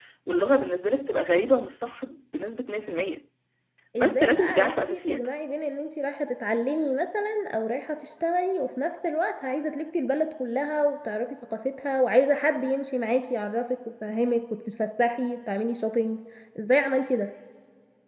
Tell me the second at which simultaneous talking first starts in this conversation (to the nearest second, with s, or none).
4 s